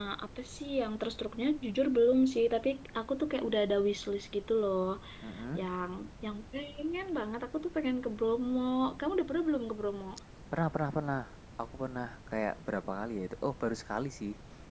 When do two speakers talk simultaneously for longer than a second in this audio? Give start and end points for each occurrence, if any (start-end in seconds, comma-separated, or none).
none